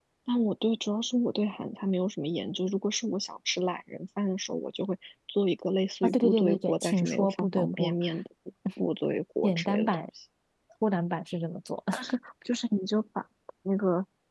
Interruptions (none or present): present